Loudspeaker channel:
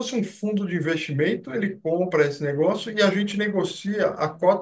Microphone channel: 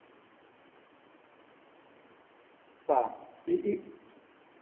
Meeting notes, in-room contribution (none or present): present